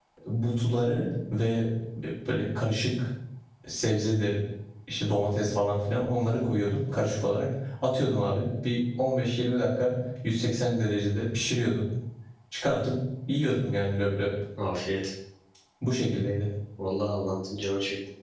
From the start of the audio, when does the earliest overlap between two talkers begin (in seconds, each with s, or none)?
none